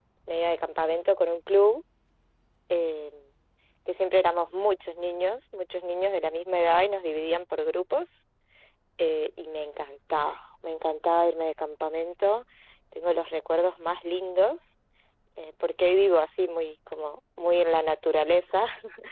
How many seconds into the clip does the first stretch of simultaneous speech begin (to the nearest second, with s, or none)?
none